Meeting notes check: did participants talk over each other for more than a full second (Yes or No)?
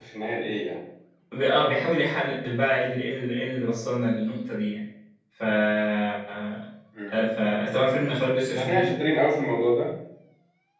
No